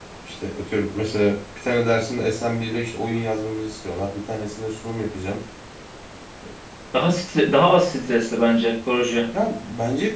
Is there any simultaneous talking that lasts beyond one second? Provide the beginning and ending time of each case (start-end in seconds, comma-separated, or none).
none